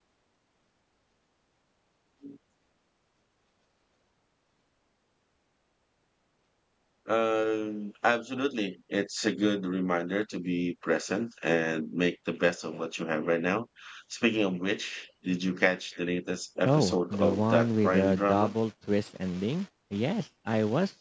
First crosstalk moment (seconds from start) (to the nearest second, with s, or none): 17 s